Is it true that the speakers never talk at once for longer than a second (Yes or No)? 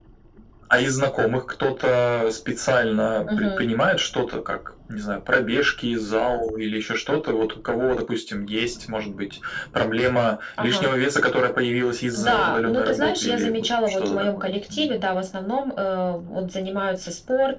No